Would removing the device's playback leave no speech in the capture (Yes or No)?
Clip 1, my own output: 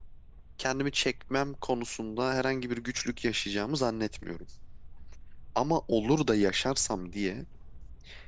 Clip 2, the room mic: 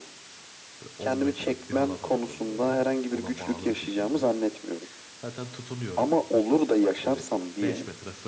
No